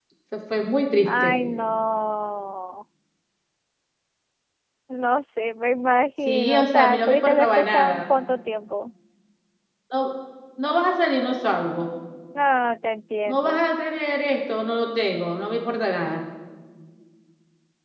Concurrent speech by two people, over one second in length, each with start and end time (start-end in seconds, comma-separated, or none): 6.2-8.1